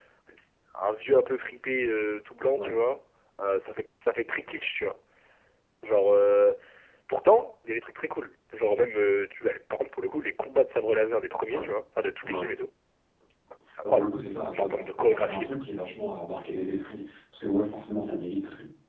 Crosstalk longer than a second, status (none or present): present